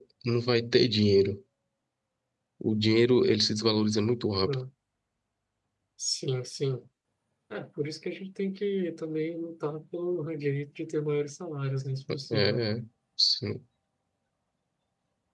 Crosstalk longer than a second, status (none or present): none